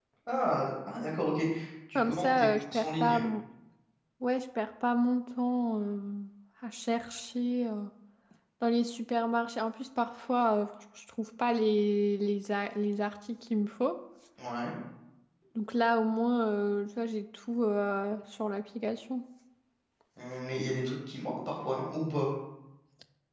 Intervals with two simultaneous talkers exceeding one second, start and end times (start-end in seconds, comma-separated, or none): 1.9-3.2